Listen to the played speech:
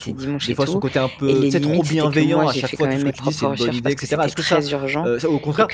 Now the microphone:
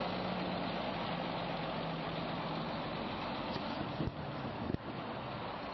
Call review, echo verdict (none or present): none